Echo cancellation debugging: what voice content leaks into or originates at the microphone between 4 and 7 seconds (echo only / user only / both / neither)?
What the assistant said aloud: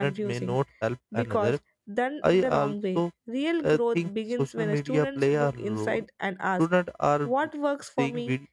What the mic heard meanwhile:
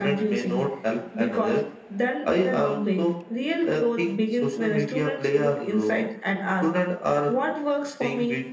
echo only